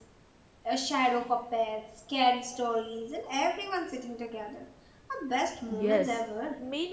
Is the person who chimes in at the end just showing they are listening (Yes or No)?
No